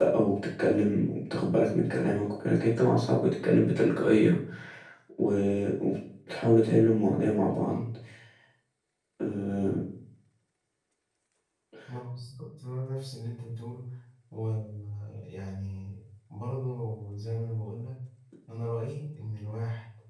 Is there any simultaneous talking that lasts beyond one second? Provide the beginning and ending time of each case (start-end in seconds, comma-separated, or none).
none